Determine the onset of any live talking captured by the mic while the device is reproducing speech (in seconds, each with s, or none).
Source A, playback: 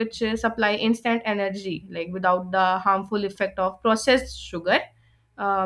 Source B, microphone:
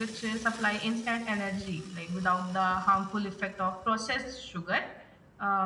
none